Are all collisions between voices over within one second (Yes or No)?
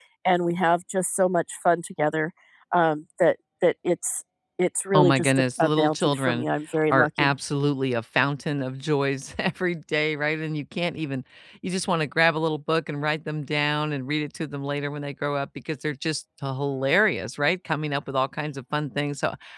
No